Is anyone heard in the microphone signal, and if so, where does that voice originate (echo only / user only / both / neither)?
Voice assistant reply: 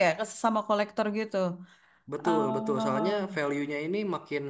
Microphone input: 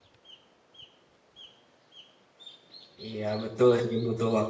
user only